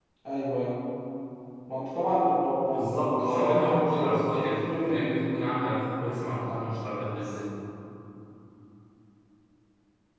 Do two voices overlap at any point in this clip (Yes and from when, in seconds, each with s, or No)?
Yes, from 2.7 s